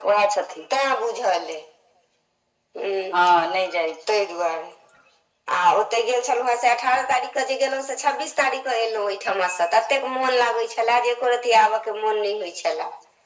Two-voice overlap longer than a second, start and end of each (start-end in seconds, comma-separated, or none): none